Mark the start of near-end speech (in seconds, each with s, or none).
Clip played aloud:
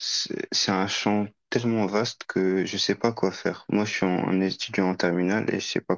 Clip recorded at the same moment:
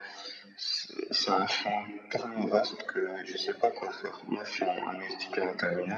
none